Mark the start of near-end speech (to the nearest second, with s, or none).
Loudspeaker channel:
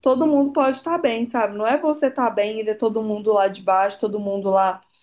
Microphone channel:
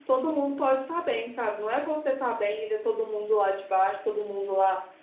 none